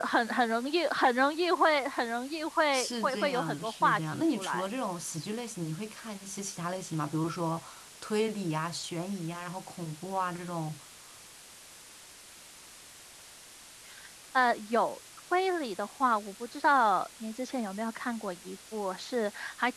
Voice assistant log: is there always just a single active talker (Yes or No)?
No